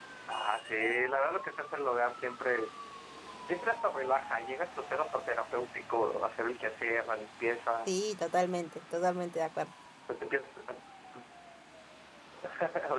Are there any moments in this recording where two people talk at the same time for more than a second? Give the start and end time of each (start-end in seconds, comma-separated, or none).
none